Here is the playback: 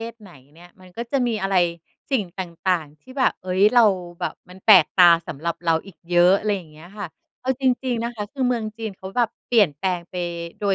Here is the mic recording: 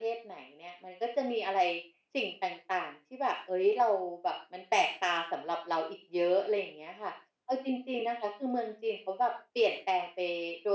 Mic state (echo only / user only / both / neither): echo only